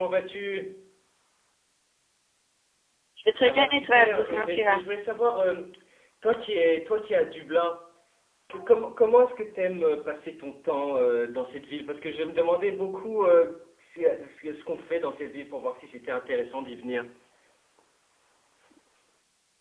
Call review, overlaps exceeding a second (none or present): present